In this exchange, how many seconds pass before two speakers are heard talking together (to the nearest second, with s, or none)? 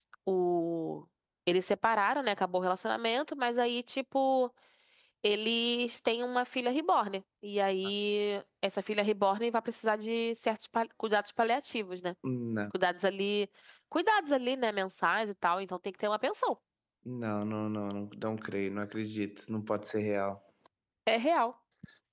none